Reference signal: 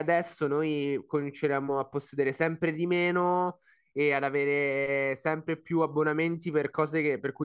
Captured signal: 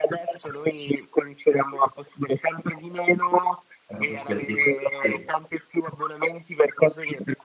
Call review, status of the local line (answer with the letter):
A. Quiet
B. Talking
B